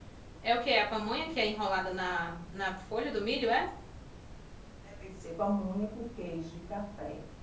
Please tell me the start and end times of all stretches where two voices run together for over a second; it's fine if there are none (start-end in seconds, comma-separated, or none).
none